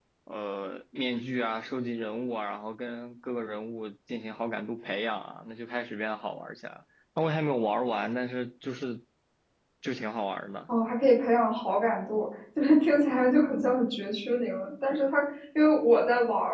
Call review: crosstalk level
none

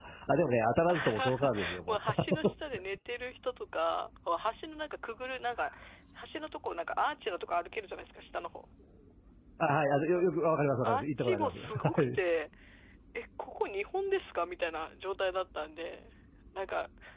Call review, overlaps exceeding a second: present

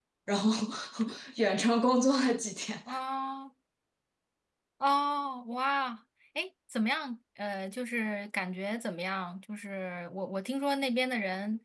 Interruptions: none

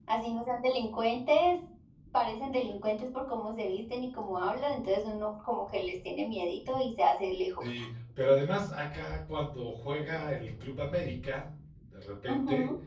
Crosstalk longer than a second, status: none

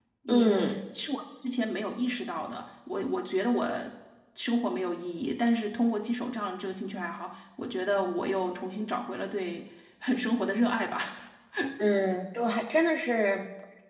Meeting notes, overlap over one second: none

